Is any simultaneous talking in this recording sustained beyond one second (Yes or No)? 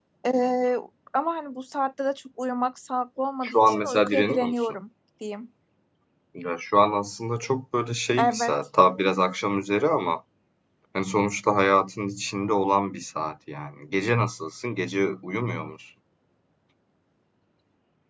Yes